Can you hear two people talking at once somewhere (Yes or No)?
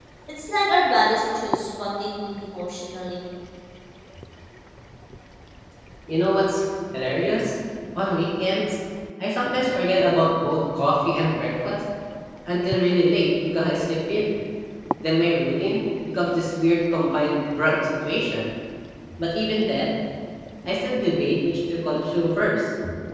No